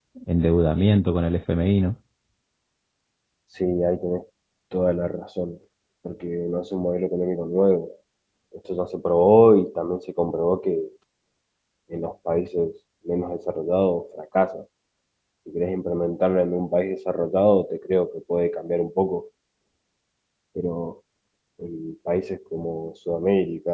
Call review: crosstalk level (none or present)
none